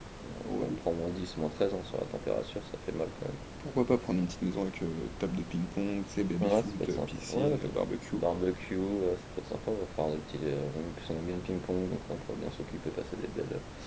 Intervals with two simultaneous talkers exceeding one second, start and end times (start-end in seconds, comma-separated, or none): 6.4-7.7